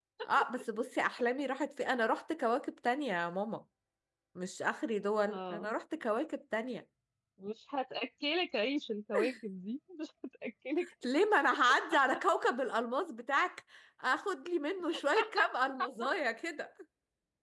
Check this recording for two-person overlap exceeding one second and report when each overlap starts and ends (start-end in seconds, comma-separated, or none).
none